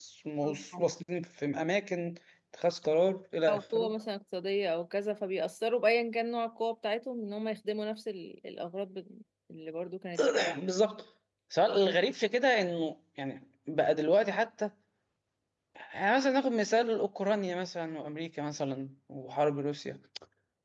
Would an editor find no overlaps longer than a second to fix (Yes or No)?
Yes